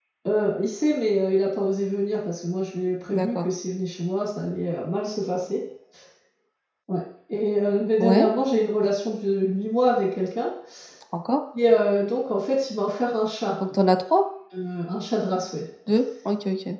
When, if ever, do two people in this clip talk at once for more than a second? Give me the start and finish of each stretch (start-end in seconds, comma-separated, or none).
none